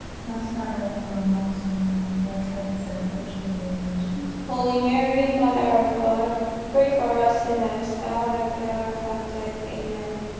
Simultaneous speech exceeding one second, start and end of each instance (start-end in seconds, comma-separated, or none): none